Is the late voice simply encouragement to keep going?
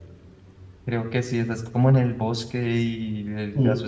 Yes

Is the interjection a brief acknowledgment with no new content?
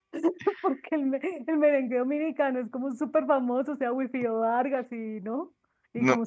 No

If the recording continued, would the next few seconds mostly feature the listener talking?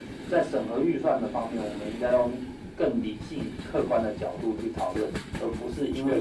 No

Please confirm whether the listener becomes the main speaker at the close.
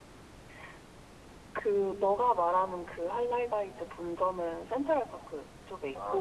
Yes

